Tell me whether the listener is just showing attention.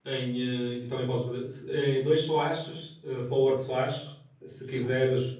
Yes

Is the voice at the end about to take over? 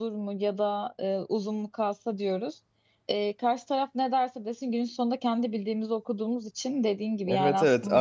Yes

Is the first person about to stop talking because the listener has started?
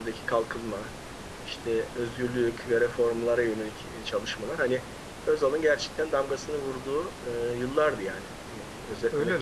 Yes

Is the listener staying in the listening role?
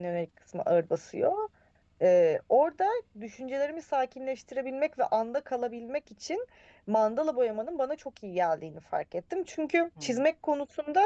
Yes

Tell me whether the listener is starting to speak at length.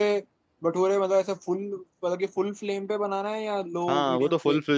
Yes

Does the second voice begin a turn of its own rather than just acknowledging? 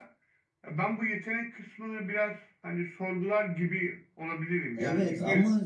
Yes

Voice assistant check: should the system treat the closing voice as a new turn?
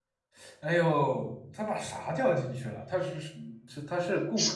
Yes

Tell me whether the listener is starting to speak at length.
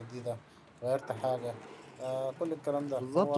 Yes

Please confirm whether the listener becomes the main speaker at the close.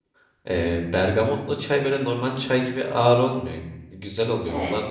Yes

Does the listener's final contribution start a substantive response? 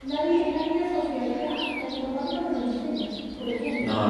Yes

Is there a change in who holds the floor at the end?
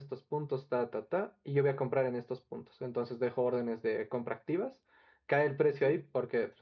No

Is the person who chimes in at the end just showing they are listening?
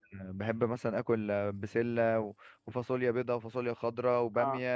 Yes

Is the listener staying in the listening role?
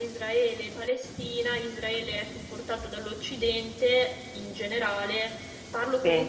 Yes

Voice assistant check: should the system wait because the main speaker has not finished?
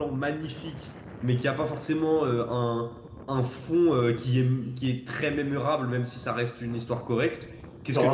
Yes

